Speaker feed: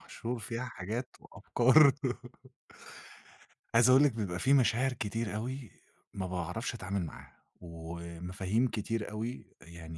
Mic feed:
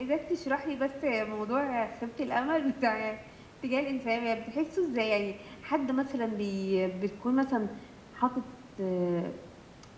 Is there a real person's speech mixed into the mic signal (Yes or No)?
Yes